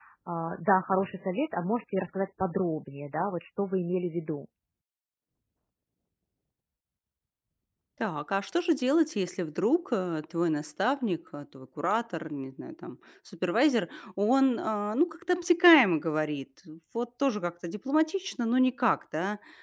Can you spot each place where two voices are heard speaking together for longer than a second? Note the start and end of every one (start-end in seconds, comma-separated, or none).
none